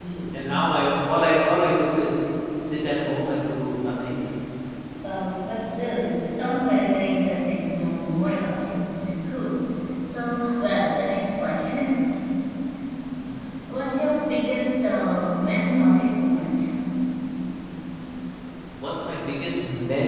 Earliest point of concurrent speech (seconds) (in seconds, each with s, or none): none